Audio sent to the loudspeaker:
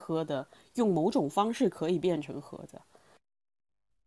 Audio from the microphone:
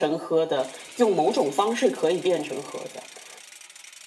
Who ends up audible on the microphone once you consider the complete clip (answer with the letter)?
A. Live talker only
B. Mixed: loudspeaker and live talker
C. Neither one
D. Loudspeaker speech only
D